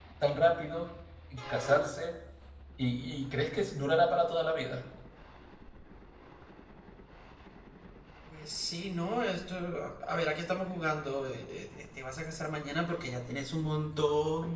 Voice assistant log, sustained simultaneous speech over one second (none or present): none